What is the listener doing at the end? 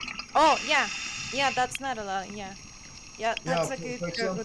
taking over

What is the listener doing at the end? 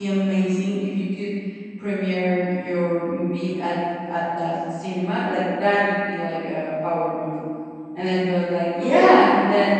listening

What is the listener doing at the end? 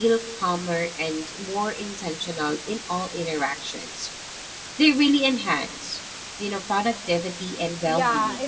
taking over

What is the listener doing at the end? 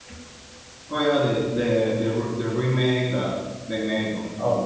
taking over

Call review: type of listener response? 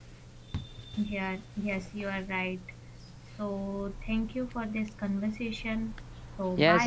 taking over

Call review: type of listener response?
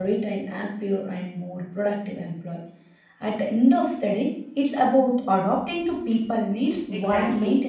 taking over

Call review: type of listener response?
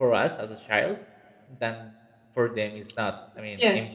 listening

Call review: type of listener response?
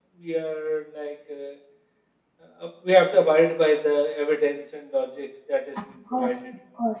taking over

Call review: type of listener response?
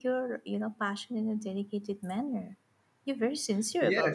taking over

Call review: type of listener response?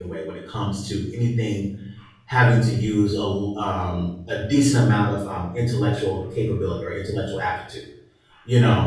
listening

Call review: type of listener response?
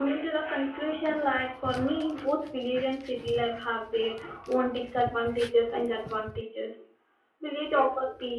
listening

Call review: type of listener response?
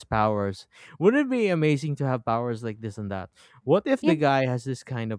listening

